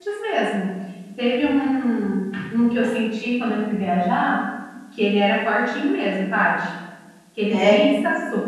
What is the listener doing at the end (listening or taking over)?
listening